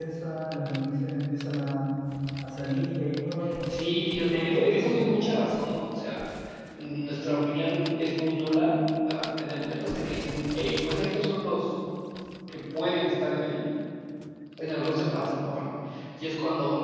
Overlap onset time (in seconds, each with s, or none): 3.7 s